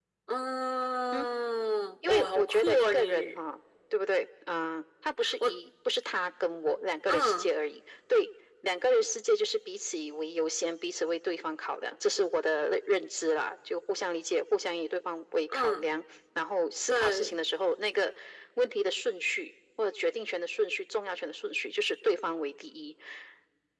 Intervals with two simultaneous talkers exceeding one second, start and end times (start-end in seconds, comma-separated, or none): 2.1-3.4